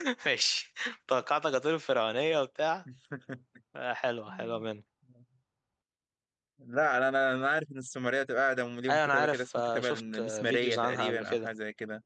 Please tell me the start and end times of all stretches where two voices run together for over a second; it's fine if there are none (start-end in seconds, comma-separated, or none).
8.9-11.5